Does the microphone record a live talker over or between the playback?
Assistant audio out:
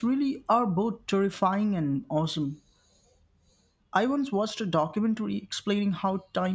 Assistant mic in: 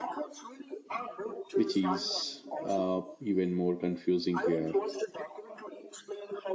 Yes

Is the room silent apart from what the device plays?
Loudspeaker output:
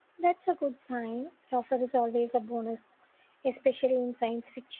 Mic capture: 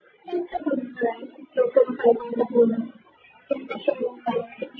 Yes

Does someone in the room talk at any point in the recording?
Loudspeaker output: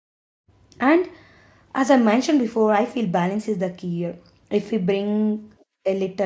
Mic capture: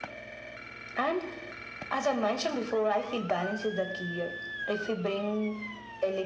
No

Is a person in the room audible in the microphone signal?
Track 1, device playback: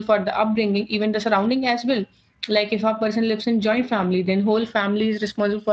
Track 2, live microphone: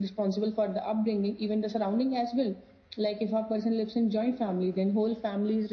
No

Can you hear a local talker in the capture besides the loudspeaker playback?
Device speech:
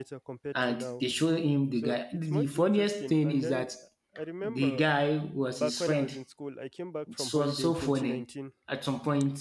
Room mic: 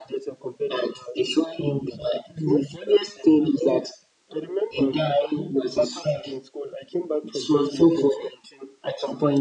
No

